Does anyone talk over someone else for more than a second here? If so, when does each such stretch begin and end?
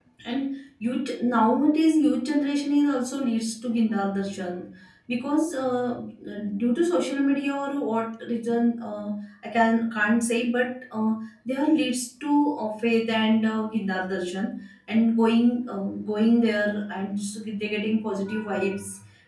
none

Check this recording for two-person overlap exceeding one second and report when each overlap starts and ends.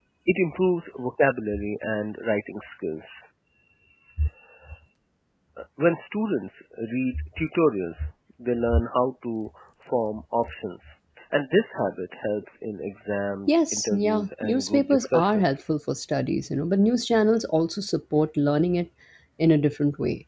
13.5-15.6

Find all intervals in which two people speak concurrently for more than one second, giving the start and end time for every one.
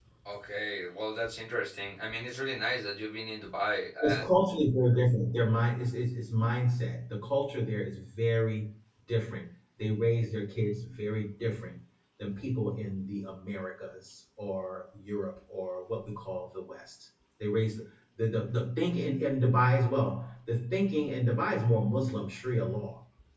none

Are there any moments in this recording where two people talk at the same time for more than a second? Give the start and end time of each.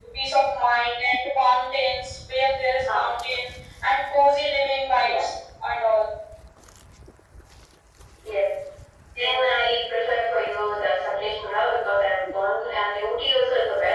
none

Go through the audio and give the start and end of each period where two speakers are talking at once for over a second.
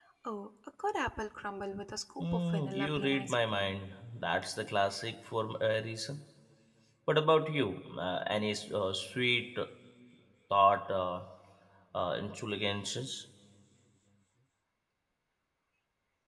2.2-3.7

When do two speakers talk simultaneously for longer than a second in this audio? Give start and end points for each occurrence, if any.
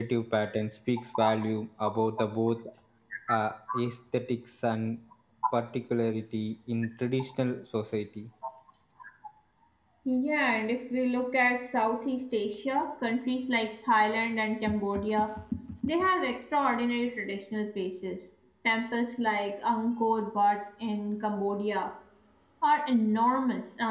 none

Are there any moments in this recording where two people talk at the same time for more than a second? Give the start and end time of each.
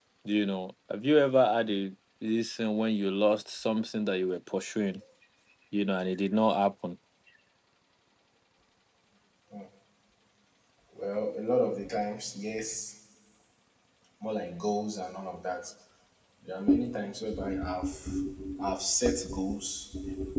none

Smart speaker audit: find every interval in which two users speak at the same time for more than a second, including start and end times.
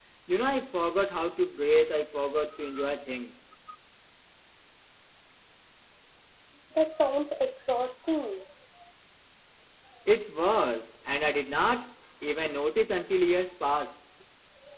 none

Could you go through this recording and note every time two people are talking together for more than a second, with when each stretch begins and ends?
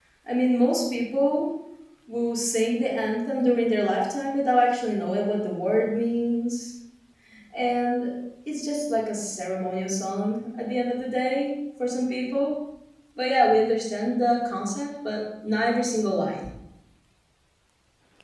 none

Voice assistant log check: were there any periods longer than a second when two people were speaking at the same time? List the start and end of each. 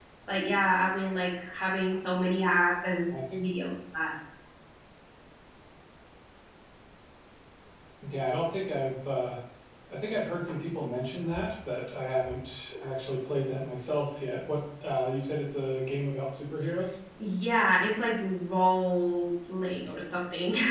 none

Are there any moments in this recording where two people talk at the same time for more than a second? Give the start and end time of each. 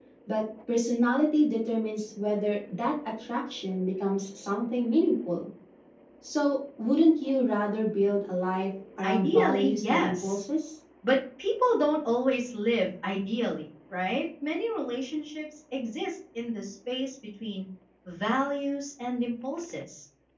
9.0-10.4

